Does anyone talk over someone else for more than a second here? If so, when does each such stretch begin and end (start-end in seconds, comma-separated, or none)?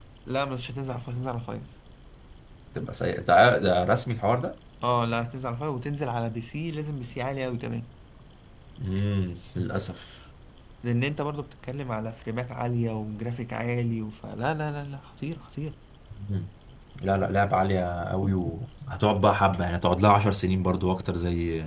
none